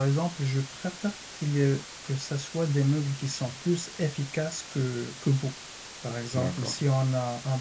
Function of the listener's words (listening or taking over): listening